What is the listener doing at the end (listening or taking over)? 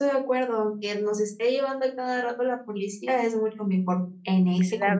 taking over